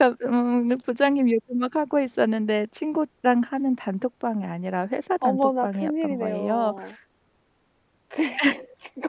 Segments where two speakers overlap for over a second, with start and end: 5.2-6.7

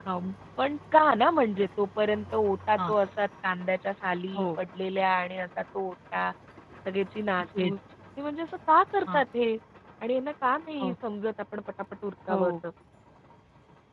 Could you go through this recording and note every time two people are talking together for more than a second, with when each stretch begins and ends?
none

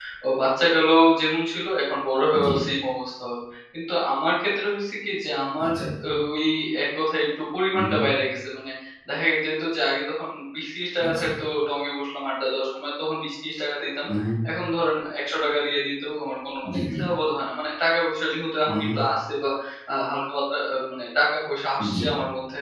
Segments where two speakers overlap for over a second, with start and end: none

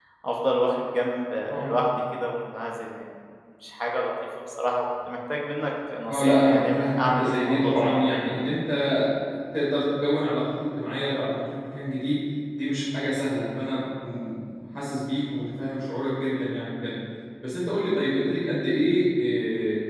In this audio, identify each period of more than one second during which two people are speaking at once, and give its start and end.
6.1-8.1

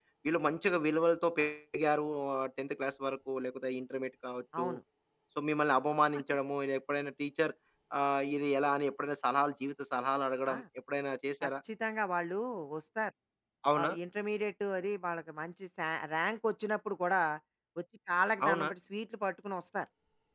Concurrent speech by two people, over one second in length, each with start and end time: none

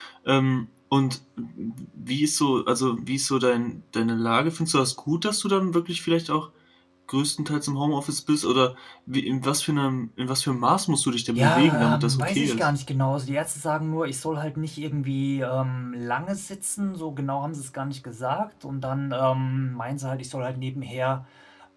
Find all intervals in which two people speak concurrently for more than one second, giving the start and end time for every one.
11.4-12.7

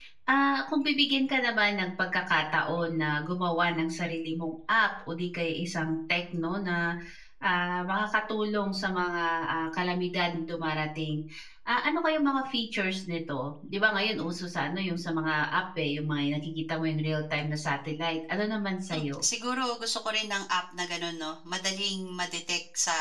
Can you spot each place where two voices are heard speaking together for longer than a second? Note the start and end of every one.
none

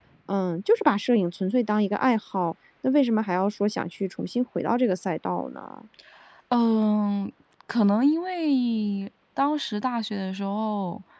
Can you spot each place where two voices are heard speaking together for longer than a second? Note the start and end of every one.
none

